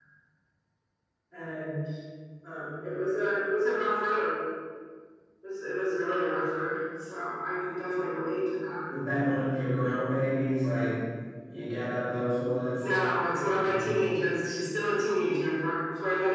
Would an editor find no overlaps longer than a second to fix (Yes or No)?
Yes